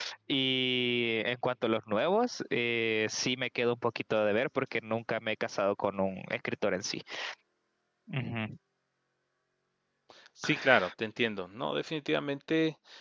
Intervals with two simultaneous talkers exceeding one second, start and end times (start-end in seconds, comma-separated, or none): none